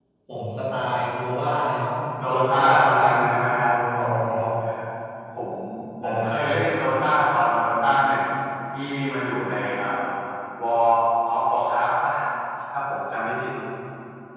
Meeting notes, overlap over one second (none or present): present